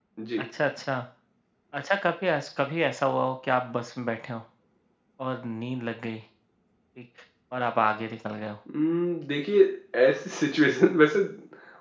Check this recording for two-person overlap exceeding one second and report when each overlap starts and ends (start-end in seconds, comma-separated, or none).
none